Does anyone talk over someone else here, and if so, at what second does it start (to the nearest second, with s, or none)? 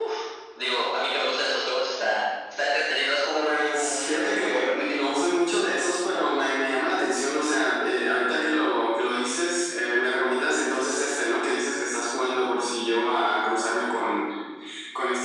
3 s